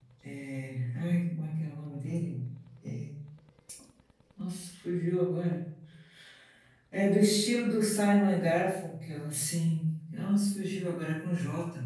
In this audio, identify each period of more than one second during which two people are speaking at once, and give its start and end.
none

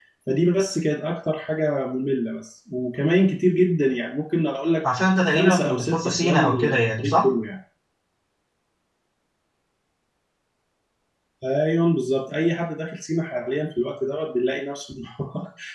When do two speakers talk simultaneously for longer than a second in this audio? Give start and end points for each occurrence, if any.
5.3-7.2

